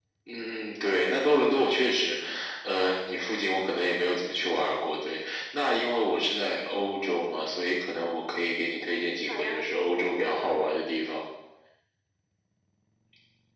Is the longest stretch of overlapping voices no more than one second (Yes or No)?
No